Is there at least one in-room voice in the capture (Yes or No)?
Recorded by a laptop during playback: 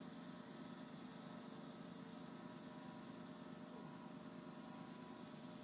No